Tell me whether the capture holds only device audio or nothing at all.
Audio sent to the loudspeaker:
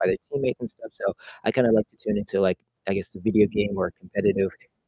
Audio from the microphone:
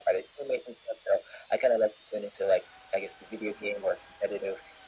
Yes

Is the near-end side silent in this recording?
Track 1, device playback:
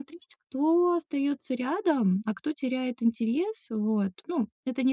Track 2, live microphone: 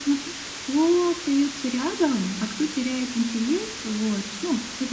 Yes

